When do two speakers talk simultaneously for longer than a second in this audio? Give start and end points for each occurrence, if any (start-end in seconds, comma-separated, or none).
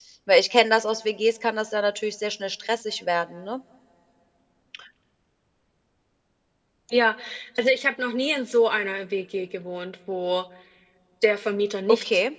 none